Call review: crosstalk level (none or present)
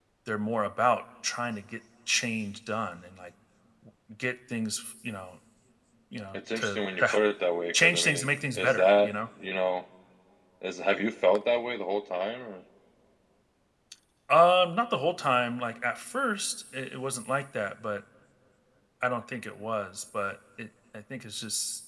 present